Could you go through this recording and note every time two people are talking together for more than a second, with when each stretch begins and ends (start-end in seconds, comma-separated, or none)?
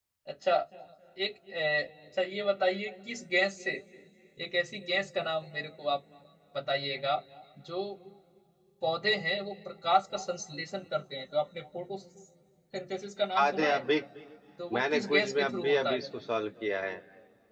14.7-16.0